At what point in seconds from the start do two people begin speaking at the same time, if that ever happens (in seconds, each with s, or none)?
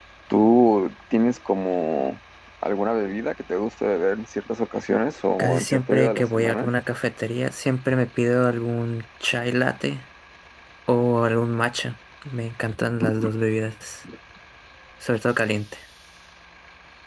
5.4 s